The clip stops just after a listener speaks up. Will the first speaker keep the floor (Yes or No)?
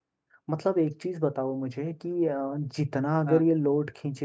Yes